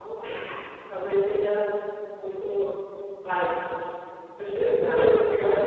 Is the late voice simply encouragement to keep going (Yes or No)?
No